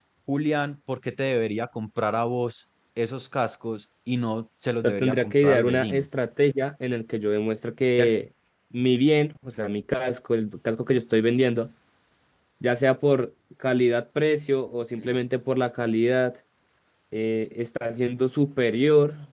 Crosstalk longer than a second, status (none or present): present